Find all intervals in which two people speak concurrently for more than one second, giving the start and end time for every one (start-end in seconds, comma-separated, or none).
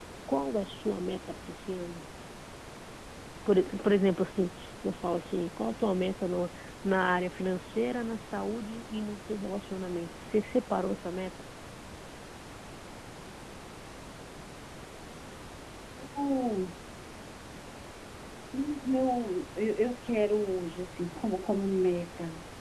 none